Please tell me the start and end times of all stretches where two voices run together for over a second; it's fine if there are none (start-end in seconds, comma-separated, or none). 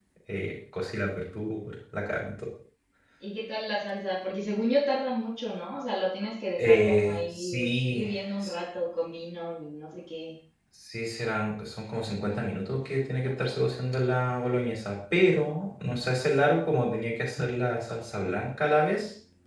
6.6-8.1